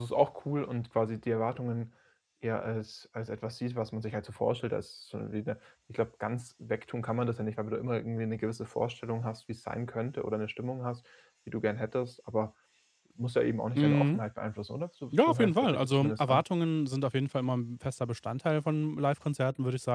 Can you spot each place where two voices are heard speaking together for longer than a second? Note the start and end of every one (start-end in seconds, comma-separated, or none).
15.1-16.4